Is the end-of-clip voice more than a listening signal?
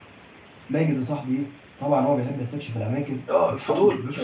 Yes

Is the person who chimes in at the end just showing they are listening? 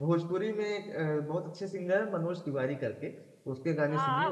No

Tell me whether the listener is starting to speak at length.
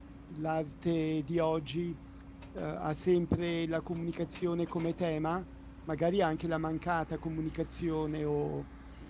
No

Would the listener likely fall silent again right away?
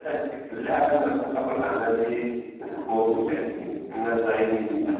Yes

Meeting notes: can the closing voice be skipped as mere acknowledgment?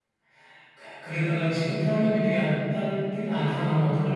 No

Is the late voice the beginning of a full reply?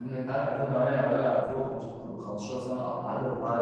Yes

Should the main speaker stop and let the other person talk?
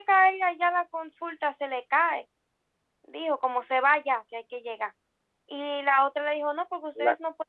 No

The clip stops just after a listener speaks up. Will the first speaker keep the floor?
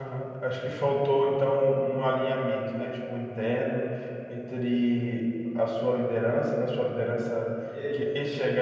Yes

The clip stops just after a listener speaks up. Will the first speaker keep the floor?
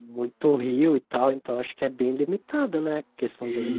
No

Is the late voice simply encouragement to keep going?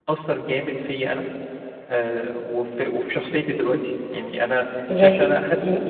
No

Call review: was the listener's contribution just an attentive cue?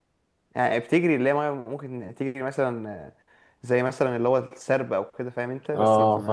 No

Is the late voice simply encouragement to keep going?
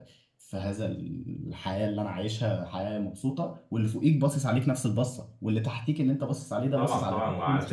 No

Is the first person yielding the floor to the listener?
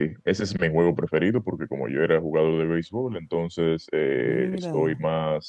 No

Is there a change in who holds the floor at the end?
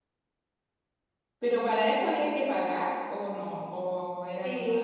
Yes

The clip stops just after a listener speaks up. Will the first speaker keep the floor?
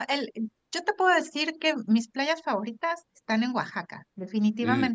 Yes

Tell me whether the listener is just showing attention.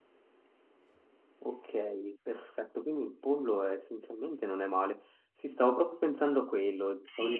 No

